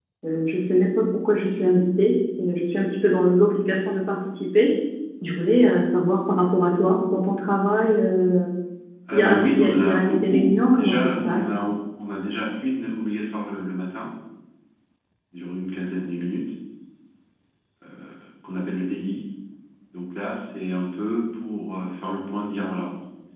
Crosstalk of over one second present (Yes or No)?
Yes